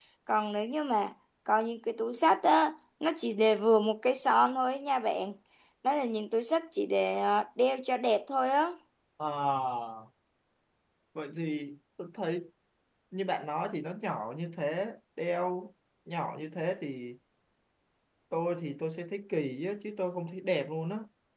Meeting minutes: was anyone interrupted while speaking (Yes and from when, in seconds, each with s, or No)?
No